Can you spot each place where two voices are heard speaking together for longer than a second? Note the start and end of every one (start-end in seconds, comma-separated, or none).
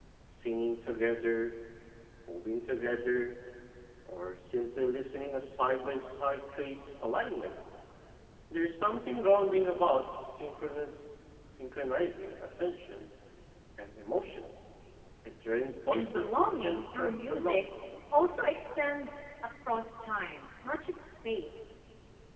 15.9-17.7